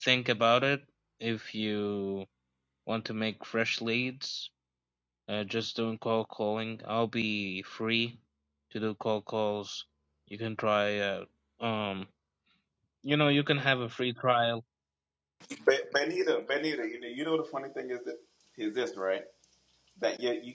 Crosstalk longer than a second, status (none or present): none